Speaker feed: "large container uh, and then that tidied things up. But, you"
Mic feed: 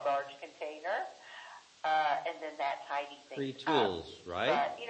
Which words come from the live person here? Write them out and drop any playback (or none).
Free tools, right?